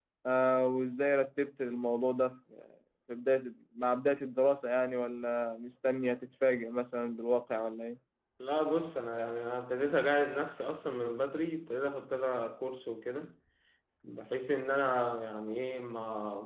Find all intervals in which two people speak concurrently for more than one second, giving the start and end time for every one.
none

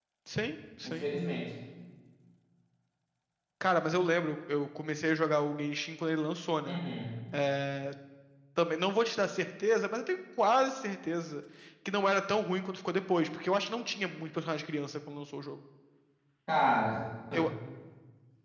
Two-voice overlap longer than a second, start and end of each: none

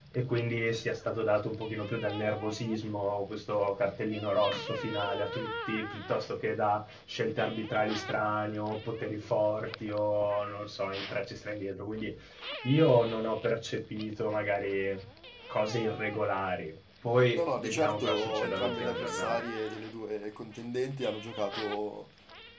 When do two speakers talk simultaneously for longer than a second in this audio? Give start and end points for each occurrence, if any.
17.3-19.4

